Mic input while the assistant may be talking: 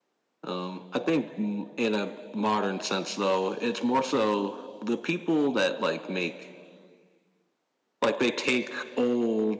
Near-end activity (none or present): none